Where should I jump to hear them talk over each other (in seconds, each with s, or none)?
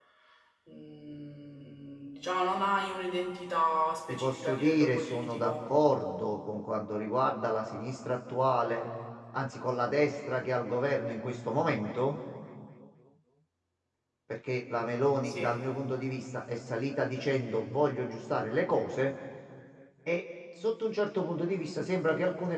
4.1 s